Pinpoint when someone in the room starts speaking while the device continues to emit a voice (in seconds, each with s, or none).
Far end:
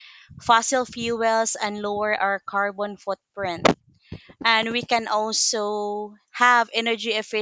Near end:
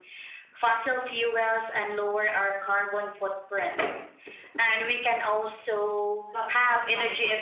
6.3 s